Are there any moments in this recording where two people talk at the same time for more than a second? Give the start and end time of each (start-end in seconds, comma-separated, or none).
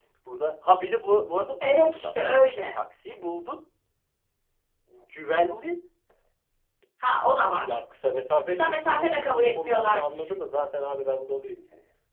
8.5-10.3